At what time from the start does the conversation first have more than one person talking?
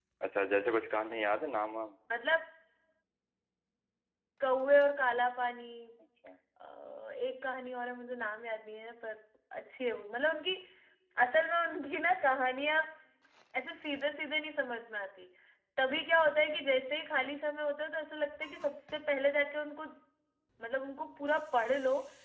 none

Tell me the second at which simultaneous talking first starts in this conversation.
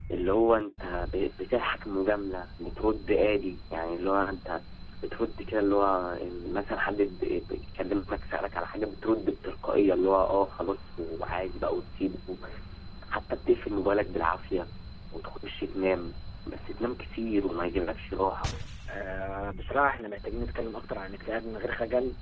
none

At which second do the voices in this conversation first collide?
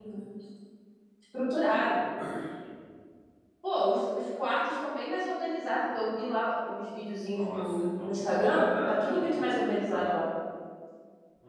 7 s

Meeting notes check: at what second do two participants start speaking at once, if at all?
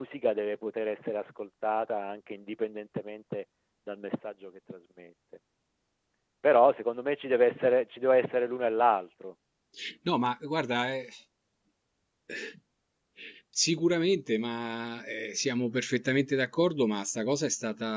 none

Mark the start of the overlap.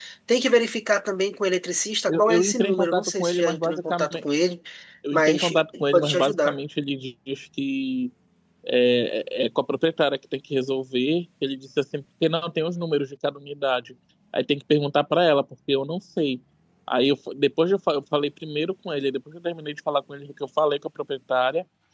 2 s

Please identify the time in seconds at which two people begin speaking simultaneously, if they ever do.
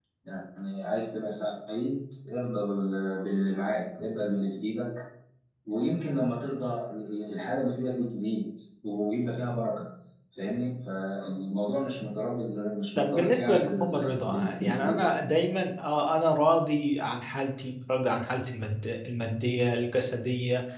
13 s

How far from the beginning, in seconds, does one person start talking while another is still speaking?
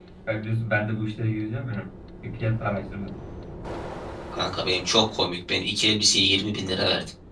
none

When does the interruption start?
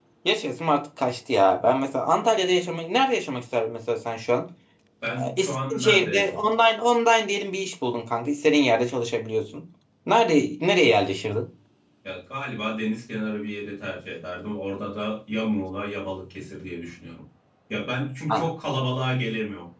5 s

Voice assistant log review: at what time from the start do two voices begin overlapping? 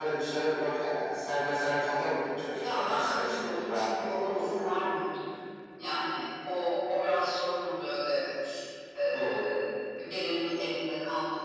3 s

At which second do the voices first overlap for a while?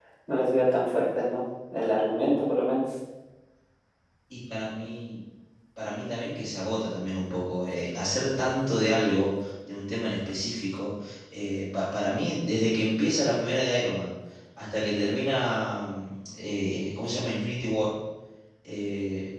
none

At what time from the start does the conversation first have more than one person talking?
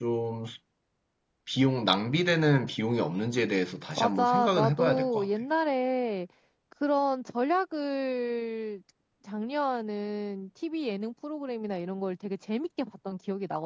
4 s

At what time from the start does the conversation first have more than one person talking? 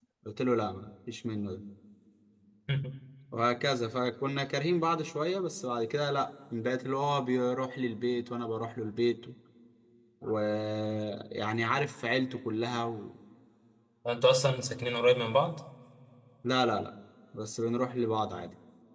none

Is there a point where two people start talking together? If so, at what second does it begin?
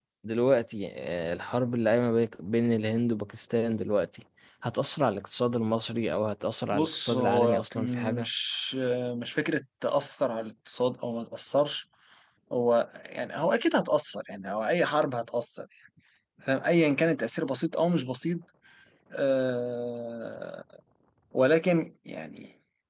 7 s

